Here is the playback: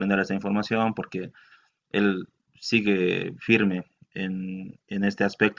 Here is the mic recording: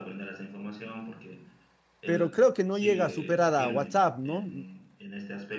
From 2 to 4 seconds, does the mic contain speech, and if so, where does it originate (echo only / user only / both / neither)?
both